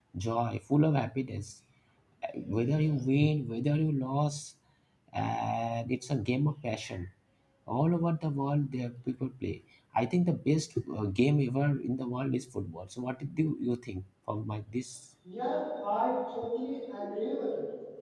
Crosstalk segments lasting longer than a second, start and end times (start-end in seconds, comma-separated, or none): none